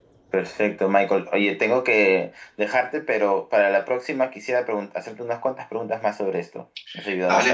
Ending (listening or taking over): taking over